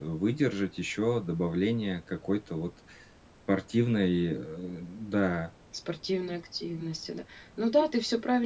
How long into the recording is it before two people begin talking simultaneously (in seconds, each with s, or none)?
none